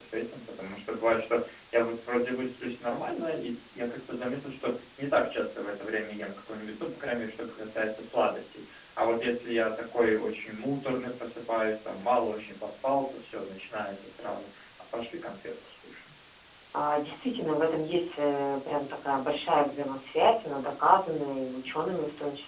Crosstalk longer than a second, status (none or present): none